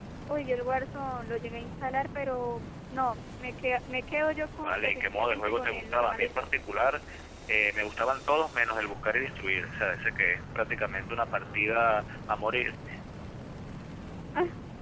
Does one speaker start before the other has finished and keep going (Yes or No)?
Yes